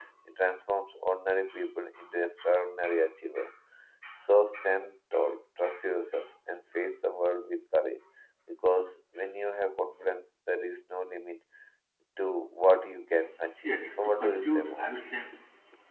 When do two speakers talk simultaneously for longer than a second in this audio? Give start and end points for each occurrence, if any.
13.6-14.9

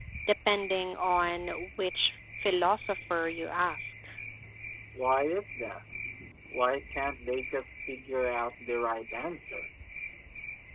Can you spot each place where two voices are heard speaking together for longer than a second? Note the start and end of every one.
none

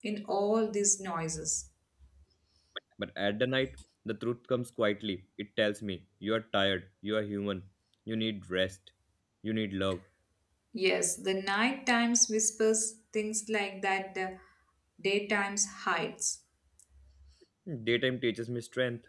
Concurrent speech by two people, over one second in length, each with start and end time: none

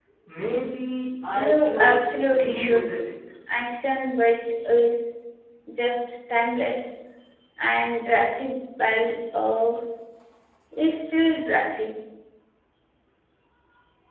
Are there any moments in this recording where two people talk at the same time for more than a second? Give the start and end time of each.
1.4-2.8

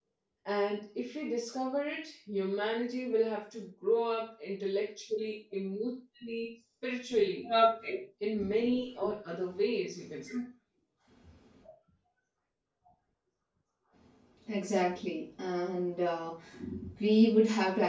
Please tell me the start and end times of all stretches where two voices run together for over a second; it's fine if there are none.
none

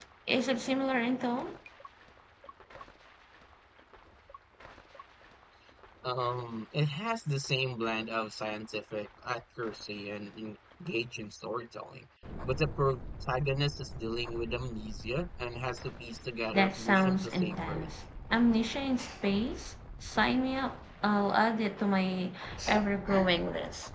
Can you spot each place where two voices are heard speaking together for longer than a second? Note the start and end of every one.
16.5-17.9

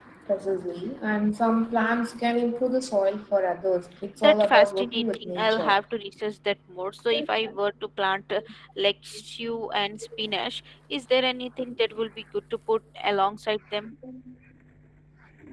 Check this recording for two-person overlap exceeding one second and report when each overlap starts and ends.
4.2-5.8

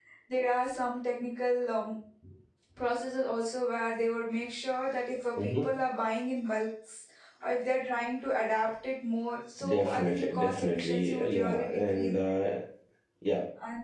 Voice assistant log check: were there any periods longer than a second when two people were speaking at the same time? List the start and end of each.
9.6-12.1

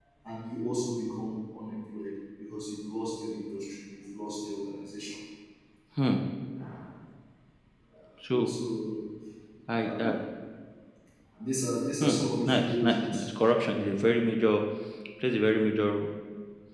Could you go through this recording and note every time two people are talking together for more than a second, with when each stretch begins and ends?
12.0-13.2

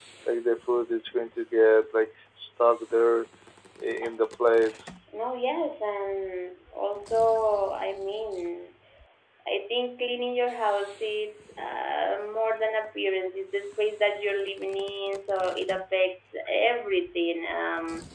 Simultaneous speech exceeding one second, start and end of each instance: none

